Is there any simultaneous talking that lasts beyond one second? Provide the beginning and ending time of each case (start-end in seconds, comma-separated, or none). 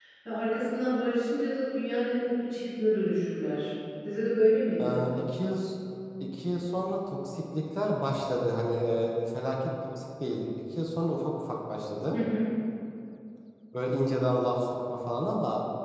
none